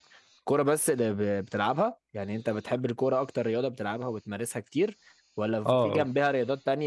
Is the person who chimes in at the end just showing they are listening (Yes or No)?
Yes